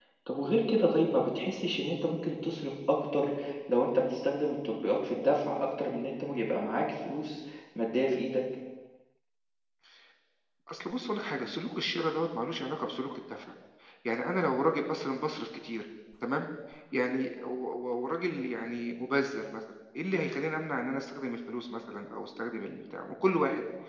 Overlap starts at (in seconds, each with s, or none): none